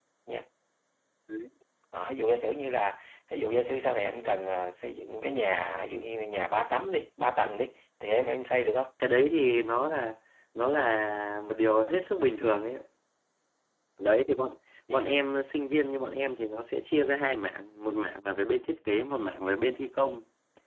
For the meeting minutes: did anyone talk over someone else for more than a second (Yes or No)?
No